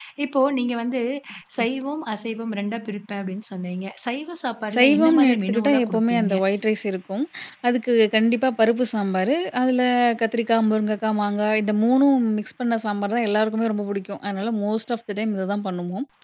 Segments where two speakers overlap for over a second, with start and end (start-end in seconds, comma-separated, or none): 4.8-6.3